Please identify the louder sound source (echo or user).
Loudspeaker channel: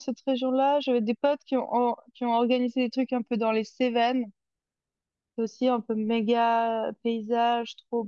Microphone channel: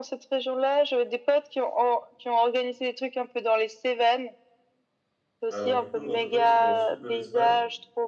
echo